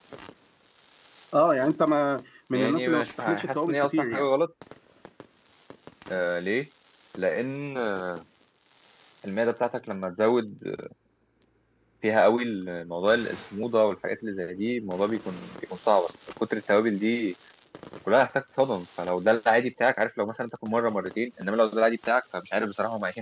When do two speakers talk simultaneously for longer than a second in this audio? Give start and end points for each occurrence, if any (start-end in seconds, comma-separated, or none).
2.5-4.2